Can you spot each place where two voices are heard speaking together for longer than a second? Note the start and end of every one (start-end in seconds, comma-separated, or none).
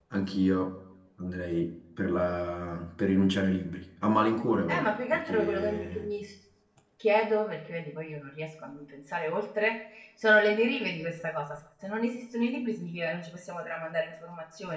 4.7-6.1